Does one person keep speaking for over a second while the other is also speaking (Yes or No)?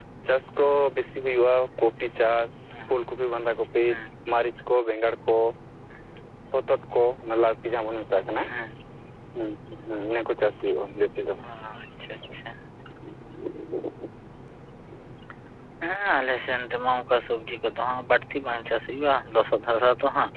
No